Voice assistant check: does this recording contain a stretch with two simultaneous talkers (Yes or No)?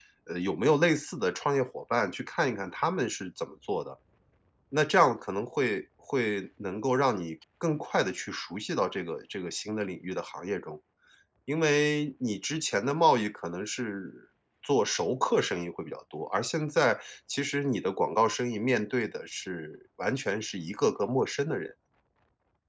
No